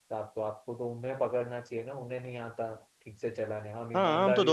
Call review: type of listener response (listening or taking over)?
taking over